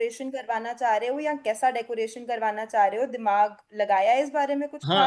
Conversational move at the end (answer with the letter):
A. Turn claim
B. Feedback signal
A